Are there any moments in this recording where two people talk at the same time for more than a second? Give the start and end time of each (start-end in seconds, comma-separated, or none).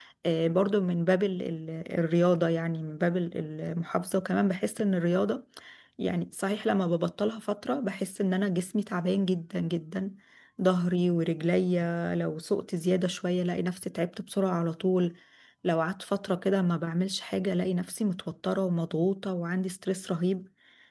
none